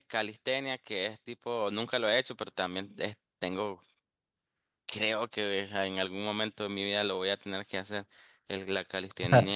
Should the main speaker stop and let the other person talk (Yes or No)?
No